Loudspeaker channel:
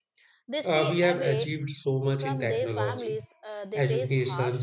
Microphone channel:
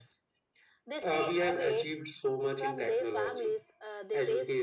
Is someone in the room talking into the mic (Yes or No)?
No